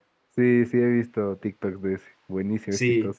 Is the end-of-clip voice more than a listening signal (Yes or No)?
Yes